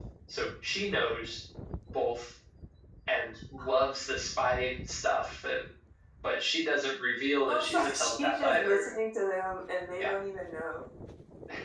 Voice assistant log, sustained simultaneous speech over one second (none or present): present